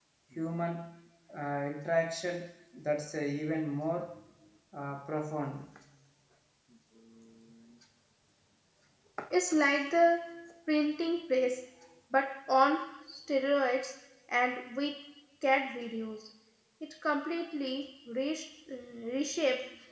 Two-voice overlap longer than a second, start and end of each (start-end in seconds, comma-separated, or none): none